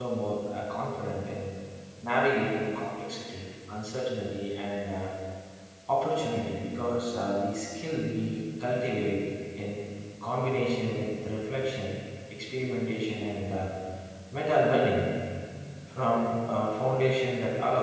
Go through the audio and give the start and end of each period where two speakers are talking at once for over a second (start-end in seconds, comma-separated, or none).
none